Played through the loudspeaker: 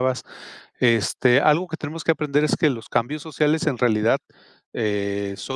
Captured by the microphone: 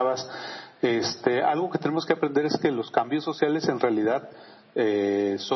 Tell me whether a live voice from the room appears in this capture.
No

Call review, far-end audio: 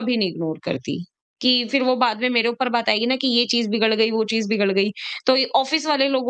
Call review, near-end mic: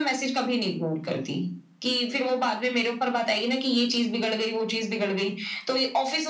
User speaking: No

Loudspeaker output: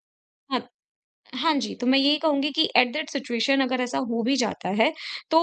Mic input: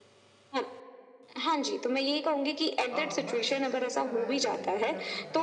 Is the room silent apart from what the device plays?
No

